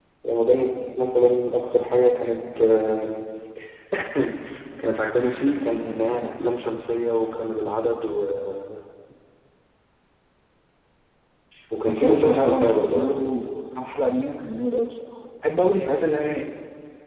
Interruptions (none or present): present